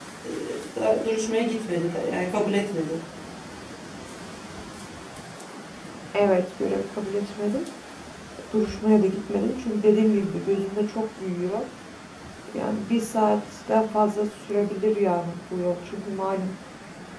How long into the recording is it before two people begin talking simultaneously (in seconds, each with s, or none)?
none